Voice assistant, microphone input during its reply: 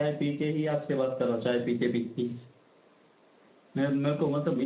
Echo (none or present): none